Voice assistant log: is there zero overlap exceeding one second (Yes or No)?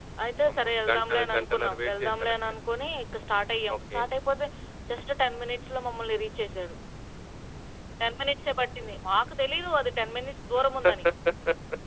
No